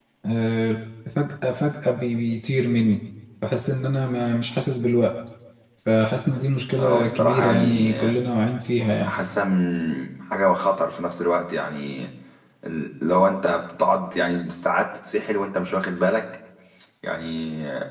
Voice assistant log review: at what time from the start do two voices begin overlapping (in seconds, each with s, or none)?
6.8 s